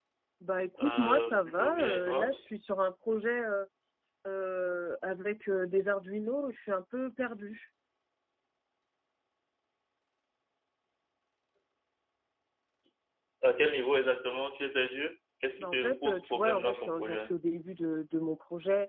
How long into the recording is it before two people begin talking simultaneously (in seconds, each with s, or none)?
0.8 s